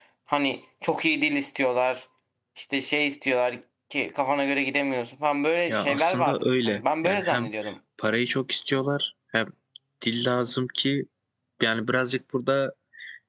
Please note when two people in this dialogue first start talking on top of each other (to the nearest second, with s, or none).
6 s